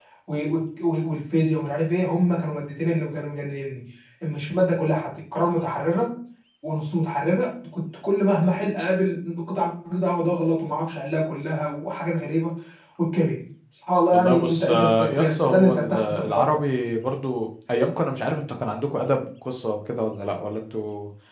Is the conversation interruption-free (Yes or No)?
No